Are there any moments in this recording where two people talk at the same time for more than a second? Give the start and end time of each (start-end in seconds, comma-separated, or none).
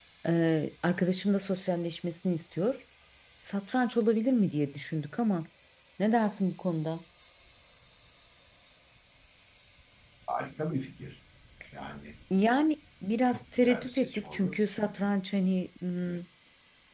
13.3-15.1